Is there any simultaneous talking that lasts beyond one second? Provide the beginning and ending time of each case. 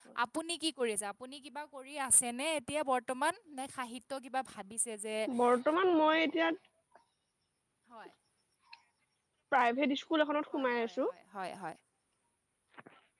none

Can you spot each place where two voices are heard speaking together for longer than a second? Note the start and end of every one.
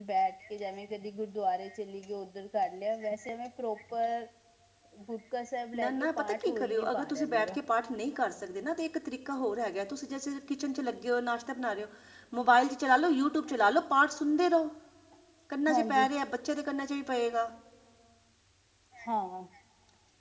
5.8-7.6

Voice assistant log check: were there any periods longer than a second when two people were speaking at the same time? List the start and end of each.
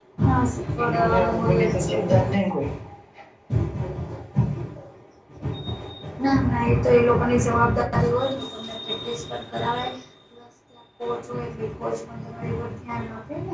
0.9-2.3

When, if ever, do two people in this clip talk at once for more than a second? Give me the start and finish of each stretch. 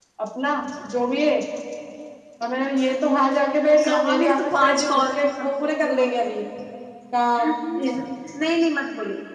3.8-6.2

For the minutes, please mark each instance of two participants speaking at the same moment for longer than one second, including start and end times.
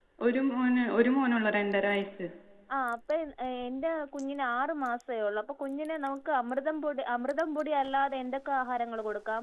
none

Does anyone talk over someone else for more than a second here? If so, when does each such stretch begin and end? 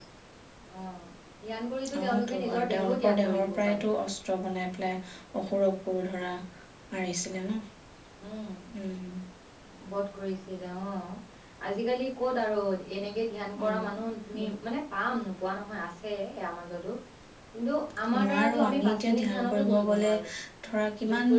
2.0-3.8, 18.2-20.1

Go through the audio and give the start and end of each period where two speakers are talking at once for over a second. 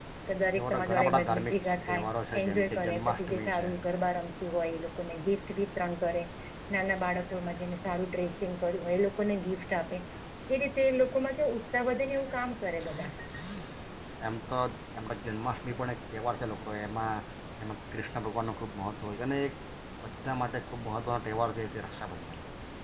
0.6-2.0, 2.4-3.6

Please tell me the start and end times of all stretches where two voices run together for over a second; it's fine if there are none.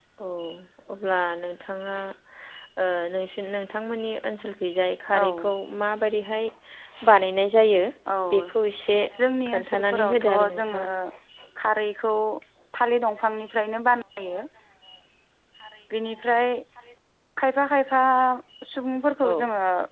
9.5-10.8

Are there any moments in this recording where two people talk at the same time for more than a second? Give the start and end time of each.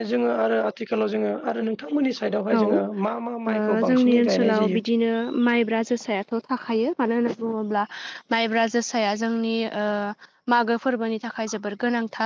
3.5-4.8

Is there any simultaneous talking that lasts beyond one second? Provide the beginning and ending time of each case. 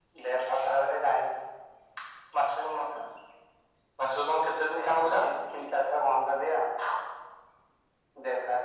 none

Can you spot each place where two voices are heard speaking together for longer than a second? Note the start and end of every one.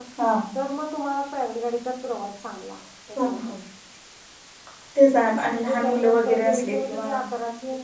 5.5-7.0

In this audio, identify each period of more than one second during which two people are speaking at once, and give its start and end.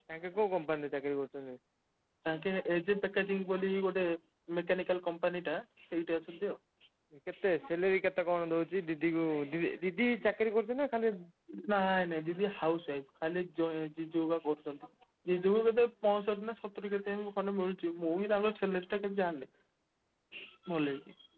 none

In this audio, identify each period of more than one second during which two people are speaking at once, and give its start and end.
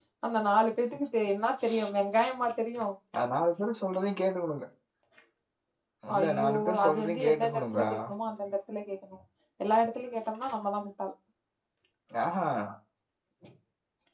6.2-7.8

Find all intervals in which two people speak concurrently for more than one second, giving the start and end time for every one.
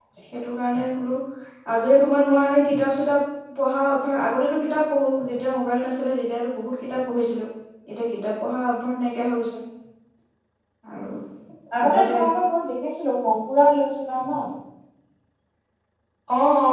none

